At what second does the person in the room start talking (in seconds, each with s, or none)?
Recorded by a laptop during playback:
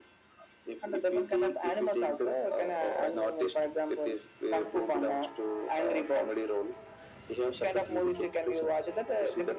none